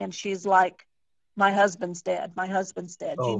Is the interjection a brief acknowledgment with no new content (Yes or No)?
Yes